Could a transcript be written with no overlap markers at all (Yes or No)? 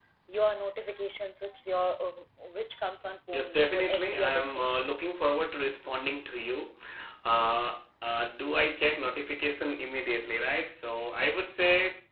No